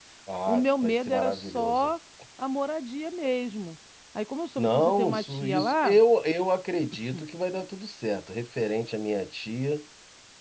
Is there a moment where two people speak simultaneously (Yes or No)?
Yes